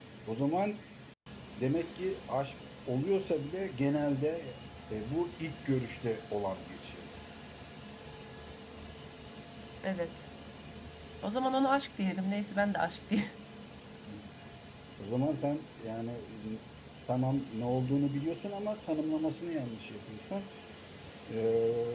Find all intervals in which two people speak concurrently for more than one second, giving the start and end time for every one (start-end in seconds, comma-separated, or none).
none